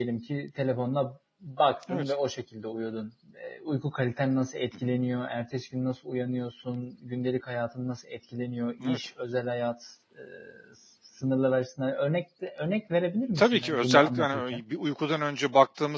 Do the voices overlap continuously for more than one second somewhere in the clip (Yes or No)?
Yes